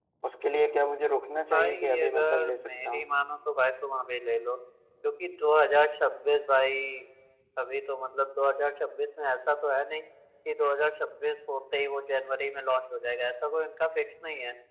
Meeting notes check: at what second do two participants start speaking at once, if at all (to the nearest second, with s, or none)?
2 s